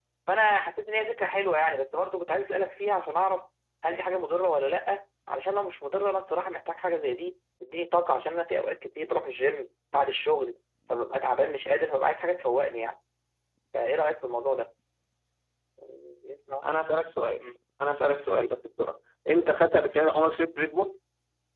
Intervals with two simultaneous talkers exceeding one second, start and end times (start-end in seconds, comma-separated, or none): none